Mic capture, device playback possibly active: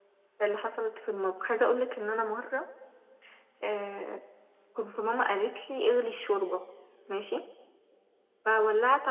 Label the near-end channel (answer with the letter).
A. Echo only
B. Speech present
A